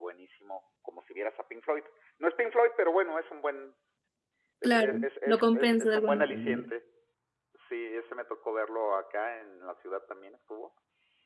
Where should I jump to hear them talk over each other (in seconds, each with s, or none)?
4.6 s